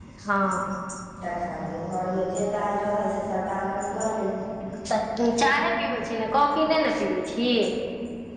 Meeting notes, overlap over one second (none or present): none